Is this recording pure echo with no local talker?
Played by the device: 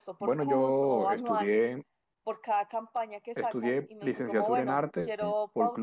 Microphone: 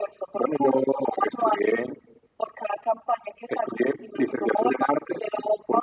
Yes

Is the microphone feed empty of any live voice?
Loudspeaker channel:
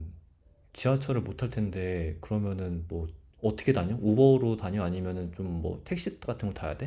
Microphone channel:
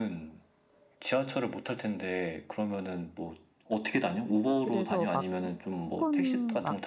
No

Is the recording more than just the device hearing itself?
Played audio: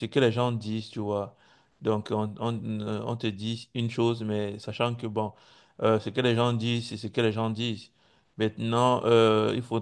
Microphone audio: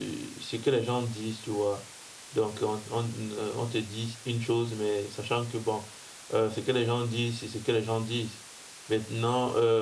No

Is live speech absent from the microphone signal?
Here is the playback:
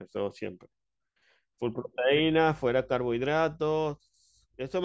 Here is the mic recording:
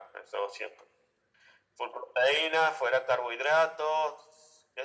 Yes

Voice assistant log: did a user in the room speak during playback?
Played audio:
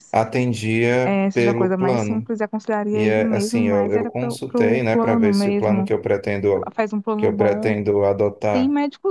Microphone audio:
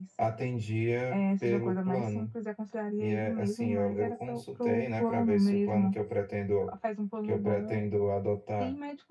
No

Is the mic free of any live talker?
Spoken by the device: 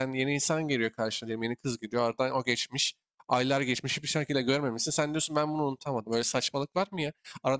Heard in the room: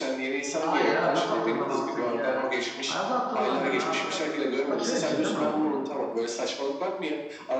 No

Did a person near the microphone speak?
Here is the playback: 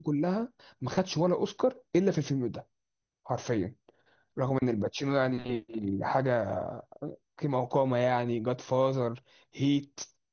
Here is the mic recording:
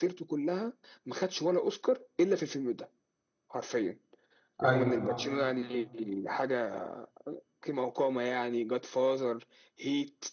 Yes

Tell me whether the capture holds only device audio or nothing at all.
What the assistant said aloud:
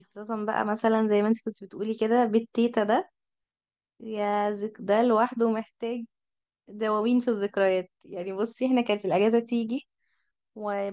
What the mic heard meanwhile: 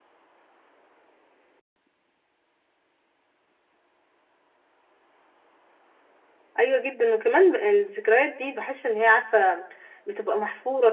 No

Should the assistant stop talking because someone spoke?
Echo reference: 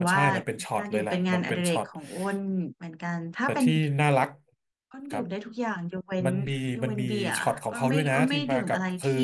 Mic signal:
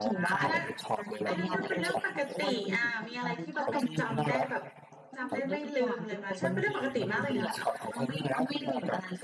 Yes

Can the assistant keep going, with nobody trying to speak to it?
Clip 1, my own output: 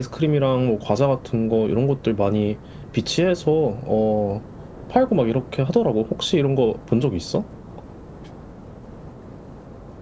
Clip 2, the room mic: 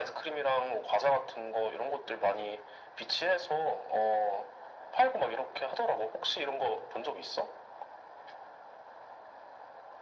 Yes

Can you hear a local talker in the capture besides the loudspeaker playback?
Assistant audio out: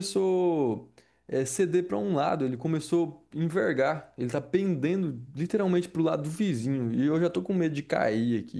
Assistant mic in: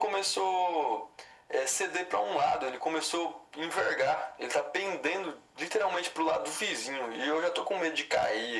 No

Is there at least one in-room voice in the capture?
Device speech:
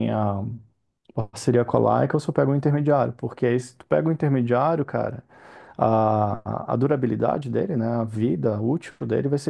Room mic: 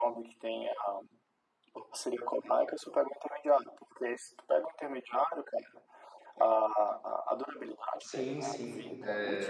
Yes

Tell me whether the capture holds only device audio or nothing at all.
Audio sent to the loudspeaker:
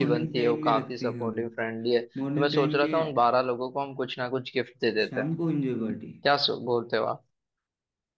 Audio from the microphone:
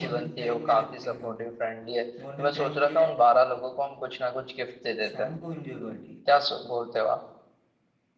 Yes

